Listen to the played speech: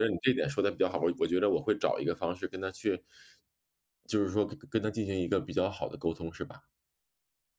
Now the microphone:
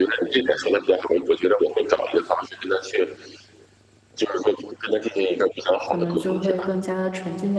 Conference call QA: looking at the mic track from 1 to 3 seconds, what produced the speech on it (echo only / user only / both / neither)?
echo only